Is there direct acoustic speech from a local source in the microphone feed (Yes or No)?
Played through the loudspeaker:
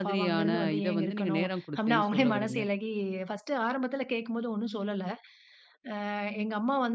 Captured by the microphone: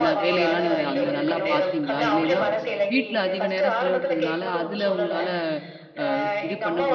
Yes